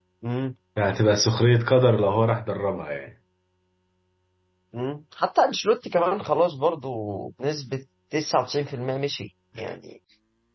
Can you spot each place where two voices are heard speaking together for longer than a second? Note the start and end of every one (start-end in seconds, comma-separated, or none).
none